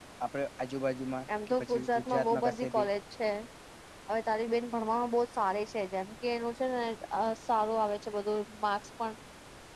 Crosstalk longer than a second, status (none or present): present